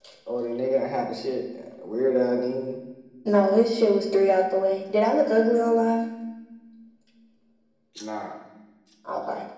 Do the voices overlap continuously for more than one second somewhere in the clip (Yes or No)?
No